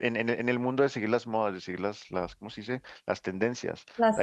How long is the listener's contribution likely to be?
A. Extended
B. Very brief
B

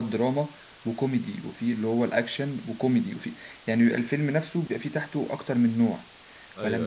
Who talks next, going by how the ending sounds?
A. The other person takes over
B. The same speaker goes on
B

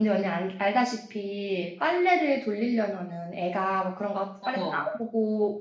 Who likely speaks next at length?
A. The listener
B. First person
B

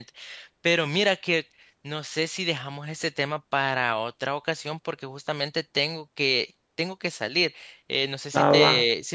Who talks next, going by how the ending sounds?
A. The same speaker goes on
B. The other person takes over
A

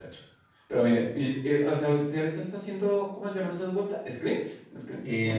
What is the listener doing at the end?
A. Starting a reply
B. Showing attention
A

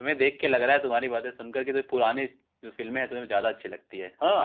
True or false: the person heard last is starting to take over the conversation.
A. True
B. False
A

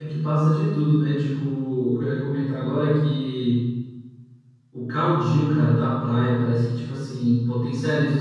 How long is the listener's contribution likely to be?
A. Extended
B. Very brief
B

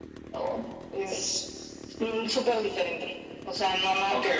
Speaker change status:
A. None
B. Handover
B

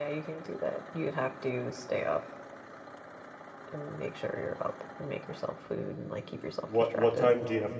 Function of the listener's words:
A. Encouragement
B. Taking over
B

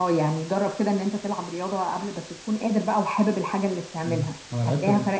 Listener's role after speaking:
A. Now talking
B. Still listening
A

